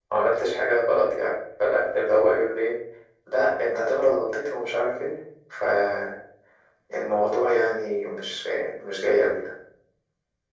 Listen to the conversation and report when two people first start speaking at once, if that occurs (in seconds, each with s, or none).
none